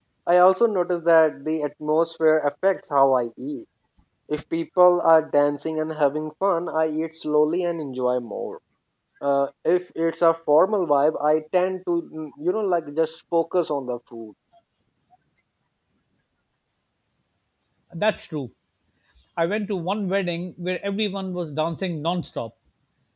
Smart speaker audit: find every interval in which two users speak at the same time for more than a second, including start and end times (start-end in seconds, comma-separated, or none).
none